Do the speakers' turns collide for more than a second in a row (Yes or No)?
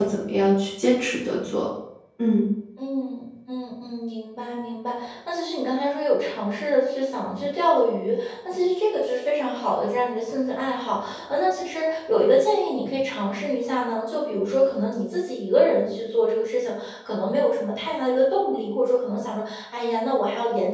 No